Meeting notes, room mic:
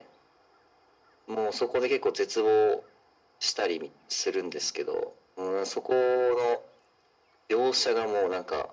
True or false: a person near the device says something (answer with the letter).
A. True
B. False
B